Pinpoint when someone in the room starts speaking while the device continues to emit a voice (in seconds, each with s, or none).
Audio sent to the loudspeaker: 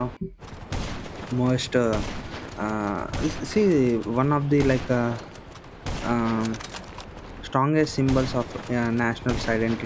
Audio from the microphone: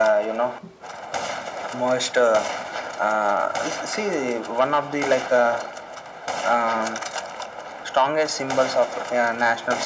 none